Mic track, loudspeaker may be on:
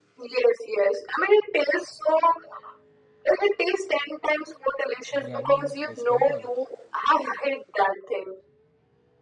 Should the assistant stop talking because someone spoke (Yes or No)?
Yes